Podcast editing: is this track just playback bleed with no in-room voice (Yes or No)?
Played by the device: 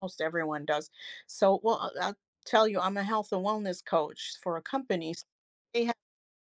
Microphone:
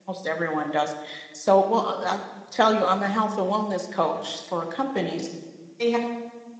Yes